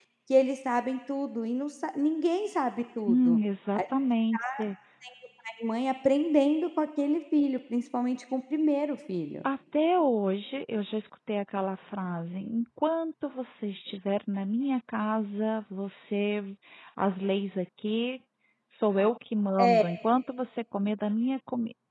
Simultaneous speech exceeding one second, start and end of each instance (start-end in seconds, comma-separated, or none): none